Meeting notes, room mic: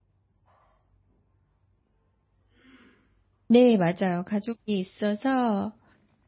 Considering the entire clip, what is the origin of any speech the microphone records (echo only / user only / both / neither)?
user only